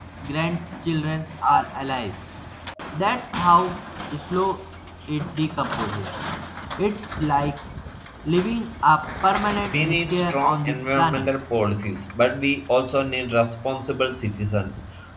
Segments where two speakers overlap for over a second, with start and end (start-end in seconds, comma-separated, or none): 9.7-11.3